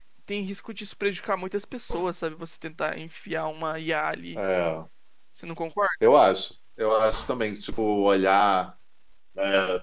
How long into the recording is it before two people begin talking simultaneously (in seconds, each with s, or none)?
none